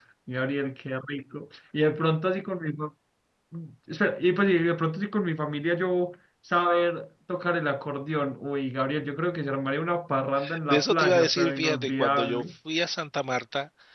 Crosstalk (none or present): present